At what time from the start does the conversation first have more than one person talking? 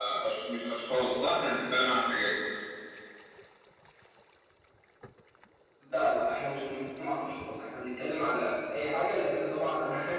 none

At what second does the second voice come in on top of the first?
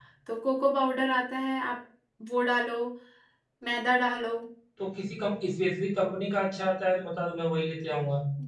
none

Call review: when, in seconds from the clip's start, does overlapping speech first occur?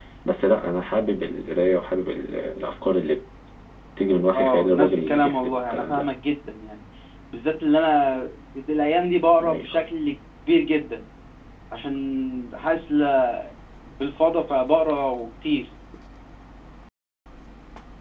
4.3 s

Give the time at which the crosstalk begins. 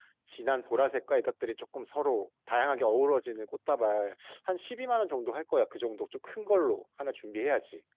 none

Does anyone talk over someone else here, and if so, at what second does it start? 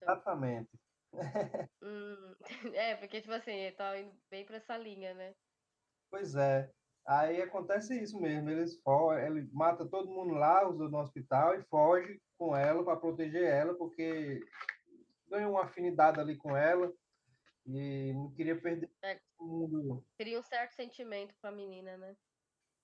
none

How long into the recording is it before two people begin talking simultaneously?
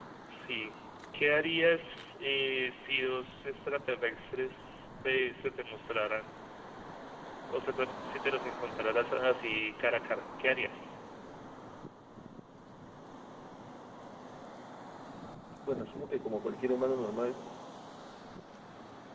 none

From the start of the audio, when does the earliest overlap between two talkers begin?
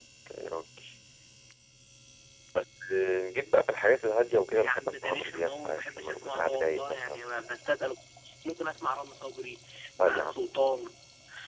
4.4 s

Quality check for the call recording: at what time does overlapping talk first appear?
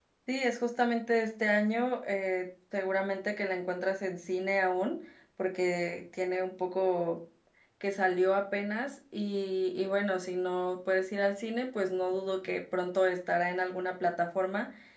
none

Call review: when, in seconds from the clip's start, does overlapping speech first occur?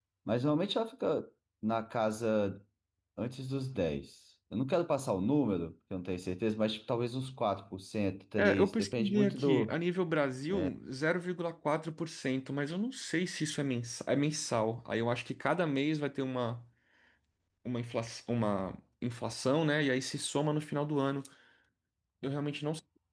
8.4 s

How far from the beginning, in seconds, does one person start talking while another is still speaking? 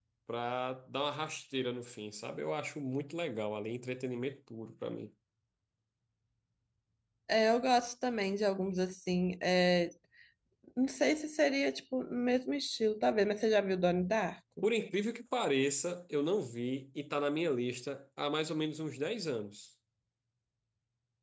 none

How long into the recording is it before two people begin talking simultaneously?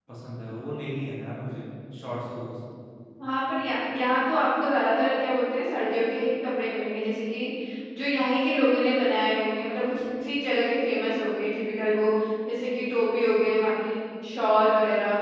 none

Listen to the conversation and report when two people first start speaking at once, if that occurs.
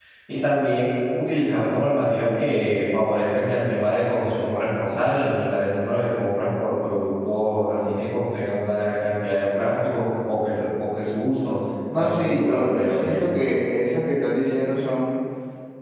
11.9 s

